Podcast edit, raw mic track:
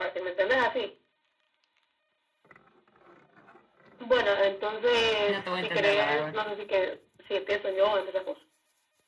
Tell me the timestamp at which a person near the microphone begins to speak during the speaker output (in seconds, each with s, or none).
5.3 s